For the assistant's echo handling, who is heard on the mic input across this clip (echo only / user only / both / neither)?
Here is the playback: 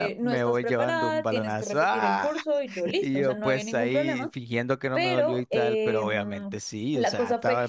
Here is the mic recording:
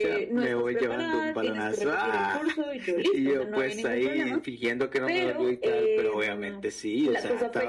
echo only